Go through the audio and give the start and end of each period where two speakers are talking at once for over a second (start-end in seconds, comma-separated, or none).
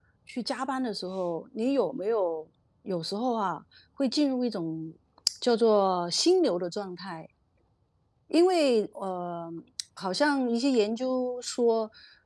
none